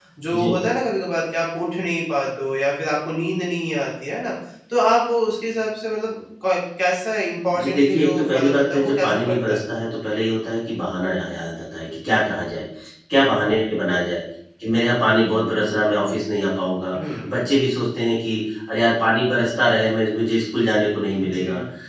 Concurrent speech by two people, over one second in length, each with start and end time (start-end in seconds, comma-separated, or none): 7.6-9.6